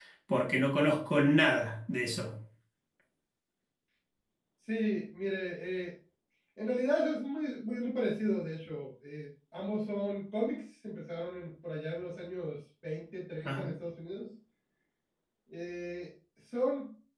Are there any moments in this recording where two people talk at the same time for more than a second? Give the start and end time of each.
none

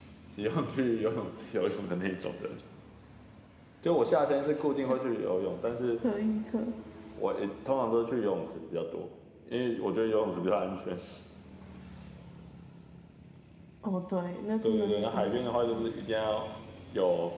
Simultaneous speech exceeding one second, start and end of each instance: 14.6-15.9

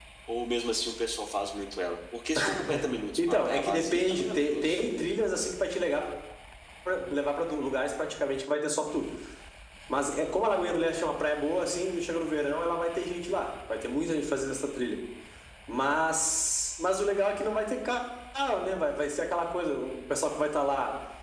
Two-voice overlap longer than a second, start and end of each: 3.2-4.8

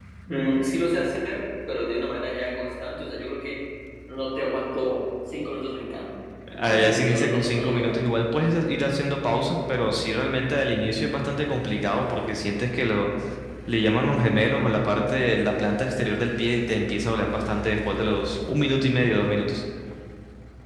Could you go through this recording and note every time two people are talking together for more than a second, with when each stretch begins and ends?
6.6-8.0

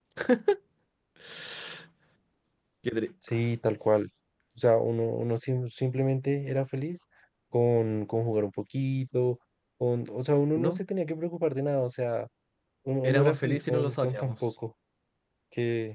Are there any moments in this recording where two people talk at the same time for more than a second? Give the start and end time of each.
13.0-14.4

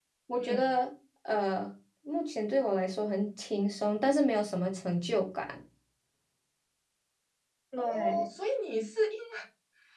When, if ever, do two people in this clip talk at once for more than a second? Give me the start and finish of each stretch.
none

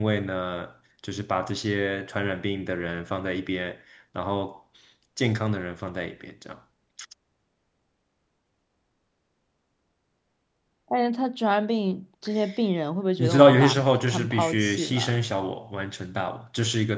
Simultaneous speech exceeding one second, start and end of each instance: 13.2-15.2

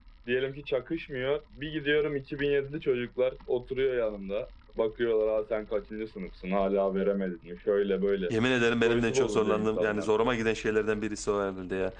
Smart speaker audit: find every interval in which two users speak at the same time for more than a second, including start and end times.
8.8-10.1

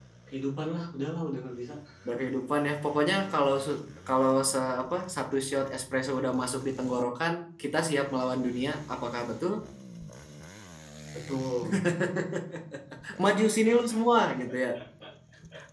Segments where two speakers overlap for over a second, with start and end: none

